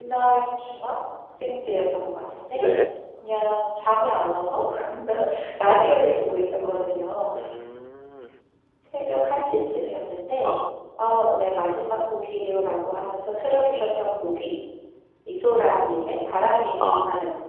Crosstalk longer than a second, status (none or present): none